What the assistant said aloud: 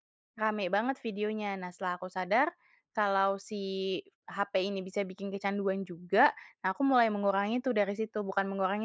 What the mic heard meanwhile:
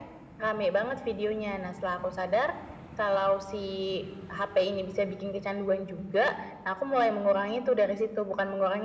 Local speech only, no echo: none

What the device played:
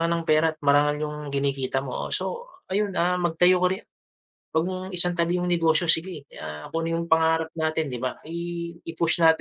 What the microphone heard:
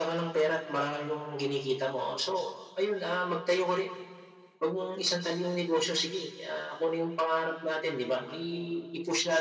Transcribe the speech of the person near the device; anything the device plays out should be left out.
none

